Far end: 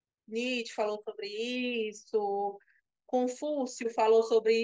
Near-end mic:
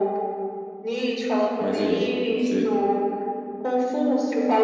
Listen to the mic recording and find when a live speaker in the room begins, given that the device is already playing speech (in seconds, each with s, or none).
1.6 s